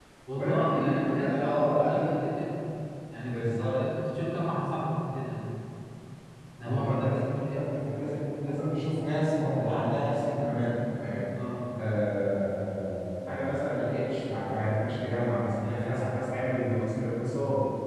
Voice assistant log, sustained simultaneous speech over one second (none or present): present